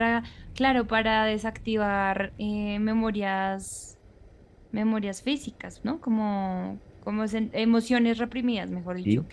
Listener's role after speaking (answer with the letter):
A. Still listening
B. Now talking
B